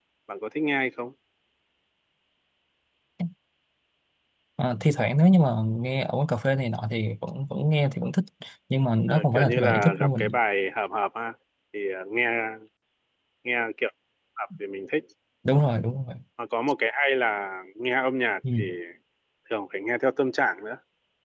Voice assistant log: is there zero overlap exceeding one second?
No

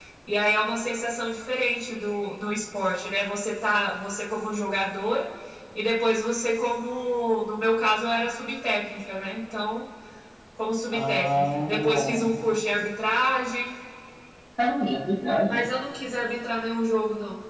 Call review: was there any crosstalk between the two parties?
Yes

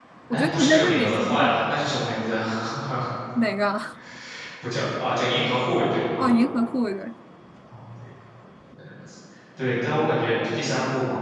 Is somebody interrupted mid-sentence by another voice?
Yes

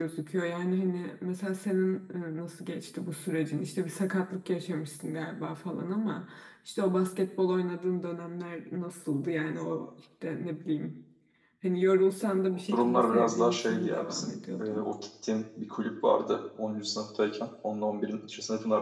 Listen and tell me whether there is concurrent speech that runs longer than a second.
Yes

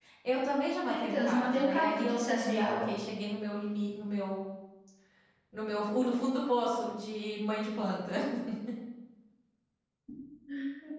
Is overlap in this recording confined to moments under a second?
No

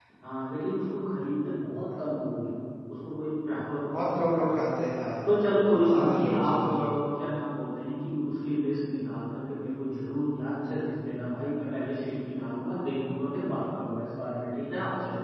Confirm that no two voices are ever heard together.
No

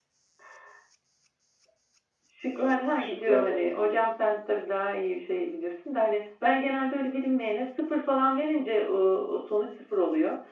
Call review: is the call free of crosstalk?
No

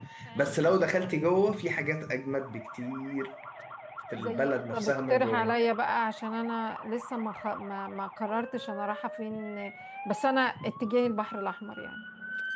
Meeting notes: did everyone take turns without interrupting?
No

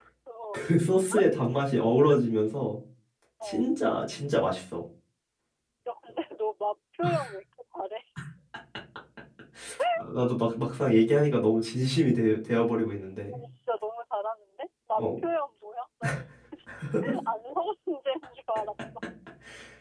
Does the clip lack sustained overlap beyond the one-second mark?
Yes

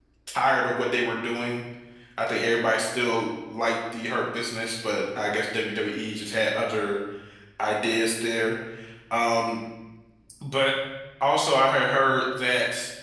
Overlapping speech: No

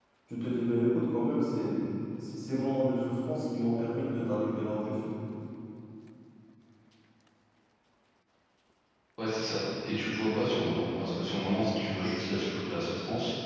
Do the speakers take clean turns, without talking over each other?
Yes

